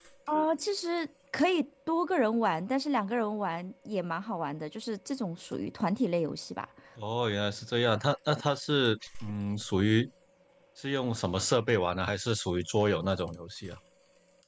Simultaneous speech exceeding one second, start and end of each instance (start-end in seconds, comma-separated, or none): none